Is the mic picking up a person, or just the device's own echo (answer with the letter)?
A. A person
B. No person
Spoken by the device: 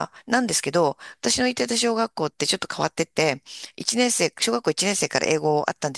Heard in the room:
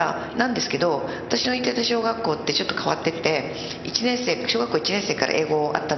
B